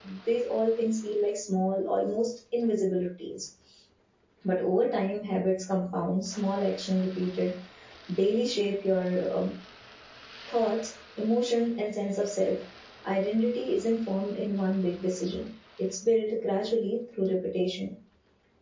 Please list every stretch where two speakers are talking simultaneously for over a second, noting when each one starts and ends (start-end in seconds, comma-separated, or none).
none